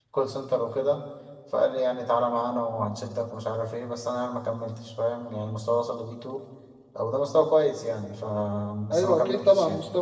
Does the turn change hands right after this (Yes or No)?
Yes